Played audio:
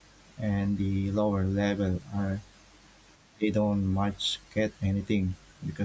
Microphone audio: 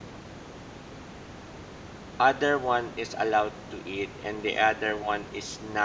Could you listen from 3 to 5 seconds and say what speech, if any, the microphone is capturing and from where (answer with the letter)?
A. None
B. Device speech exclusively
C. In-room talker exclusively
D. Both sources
C